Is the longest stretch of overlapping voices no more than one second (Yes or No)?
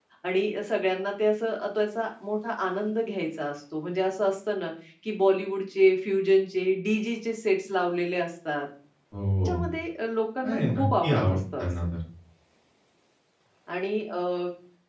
No